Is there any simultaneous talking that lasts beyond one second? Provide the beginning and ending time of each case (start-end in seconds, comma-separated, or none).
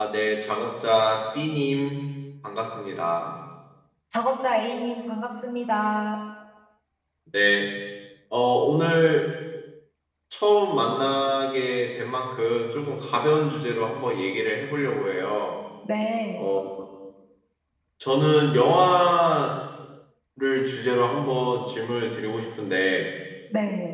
none